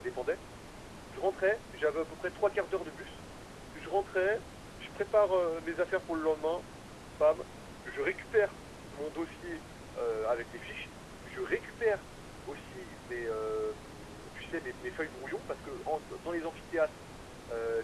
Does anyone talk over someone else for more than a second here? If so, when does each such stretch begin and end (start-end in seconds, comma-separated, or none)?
none